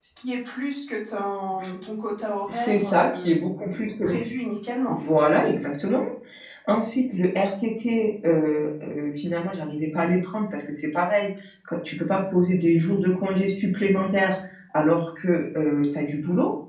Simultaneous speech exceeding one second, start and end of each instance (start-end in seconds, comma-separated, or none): 2.5-4.2